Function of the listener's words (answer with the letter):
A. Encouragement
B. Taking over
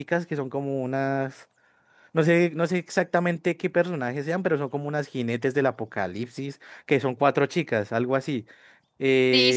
B